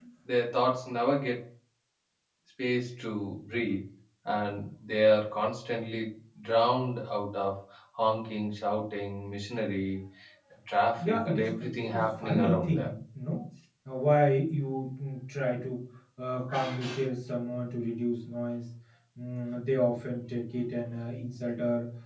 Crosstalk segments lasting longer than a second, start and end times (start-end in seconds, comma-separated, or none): 11.0-12.9